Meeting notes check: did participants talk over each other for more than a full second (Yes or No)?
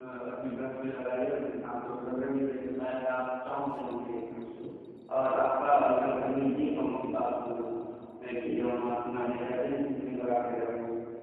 No